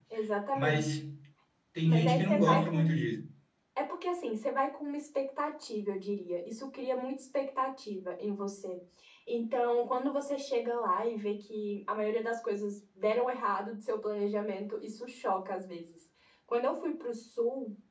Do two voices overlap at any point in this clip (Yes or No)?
Yes